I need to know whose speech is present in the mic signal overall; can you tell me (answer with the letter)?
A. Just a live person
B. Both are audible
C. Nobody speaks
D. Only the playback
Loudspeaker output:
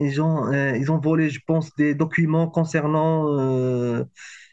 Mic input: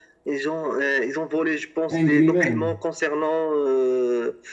B